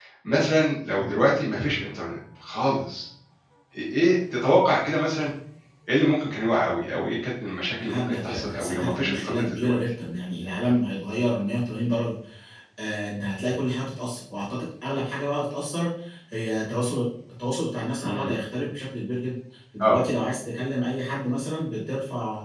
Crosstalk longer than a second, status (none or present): present